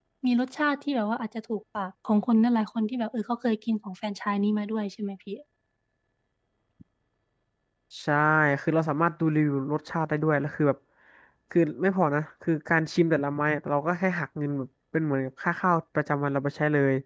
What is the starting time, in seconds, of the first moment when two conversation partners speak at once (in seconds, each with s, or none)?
none